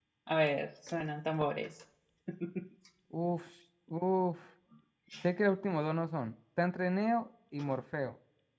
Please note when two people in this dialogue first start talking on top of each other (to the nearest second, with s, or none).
none